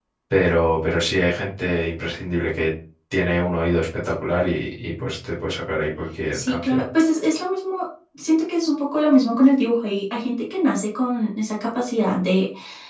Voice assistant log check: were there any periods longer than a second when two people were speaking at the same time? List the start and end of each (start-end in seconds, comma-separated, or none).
none